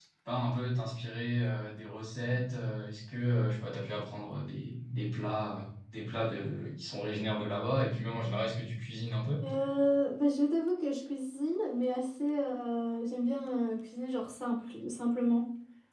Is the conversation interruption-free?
Yes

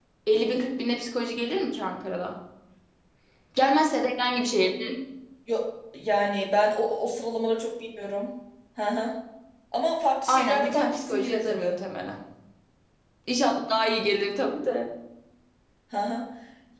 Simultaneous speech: Yes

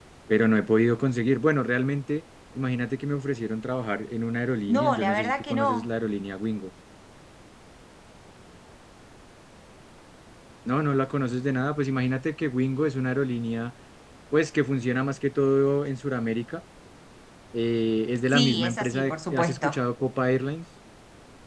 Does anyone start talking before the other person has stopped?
Yes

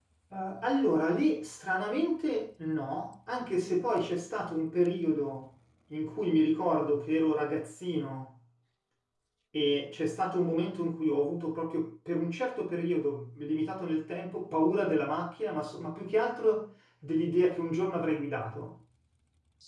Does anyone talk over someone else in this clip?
No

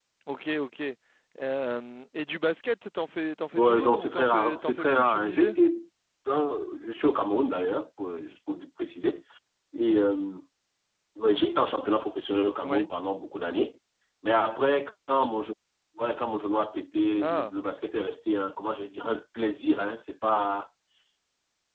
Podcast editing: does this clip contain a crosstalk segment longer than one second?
Yes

